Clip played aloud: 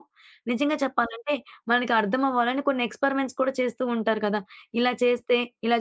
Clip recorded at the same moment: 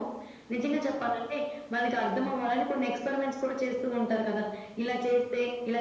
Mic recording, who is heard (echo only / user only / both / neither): echo only